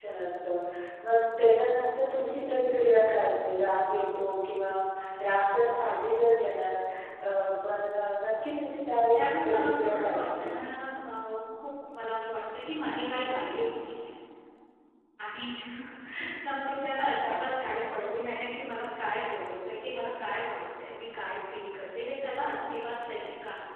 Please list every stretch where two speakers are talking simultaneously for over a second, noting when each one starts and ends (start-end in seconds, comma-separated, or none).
9.1-10.5